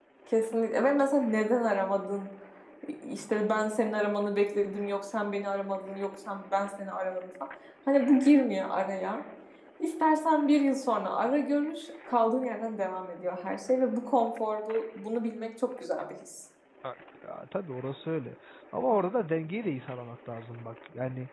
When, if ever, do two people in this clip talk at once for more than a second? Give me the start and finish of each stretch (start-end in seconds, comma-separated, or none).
none